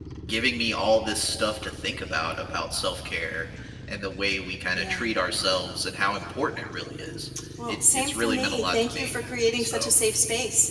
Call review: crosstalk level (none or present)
present